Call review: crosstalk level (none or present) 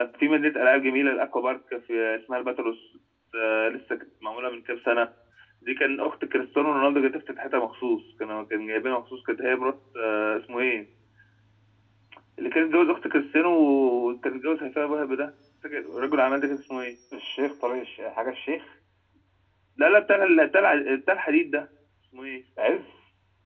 none